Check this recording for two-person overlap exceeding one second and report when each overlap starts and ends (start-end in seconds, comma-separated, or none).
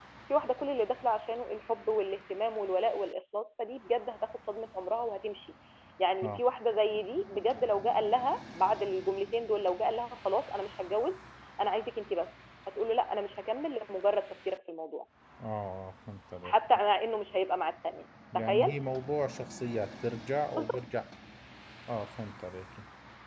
none